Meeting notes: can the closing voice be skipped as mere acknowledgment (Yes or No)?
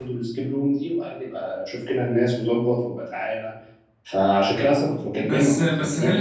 No